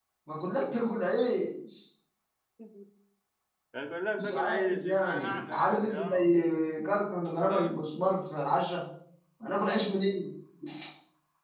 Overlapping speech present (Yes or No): Yes